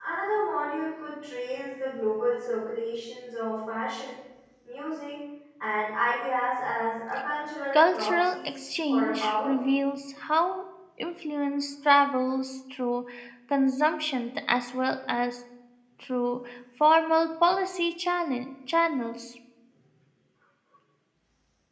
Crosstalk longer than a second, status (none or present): present